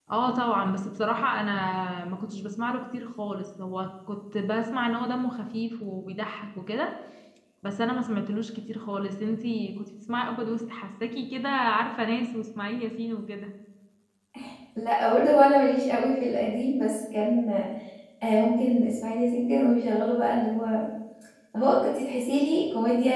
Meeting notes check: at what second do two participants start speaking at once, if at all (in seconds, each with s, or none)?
none